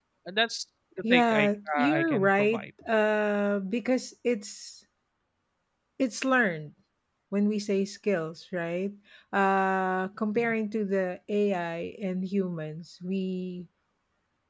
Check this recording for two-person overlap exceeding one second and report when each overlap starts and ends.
1.1-2.6

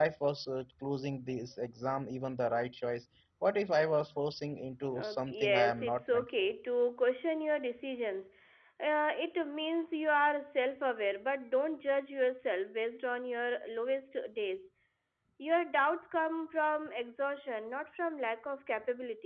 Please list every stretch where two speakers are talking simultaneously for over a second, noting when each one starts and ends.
4.9-6.5

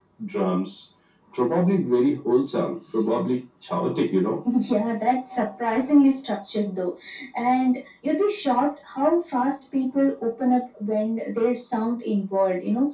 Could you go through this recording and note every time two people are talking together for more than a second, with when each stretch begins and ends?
none

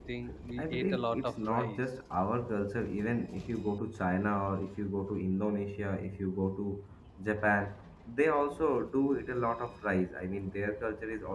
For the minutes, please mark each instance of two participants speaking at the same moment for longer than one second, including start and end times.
0.6-1.8

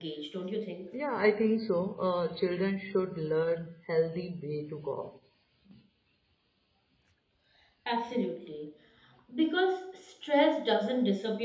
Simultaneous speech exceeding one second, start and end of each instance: none

